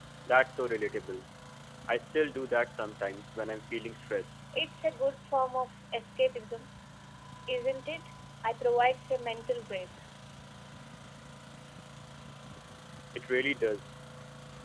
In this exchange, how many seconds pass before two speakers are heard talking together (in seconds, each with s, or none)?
none